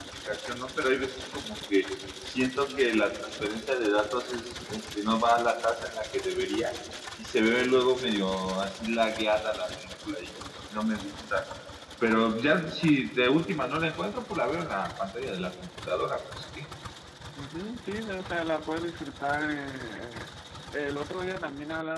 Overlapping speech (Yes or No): No